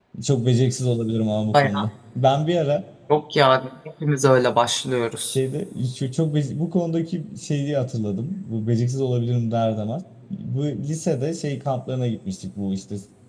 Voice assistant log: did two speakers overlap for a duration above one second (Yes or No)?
No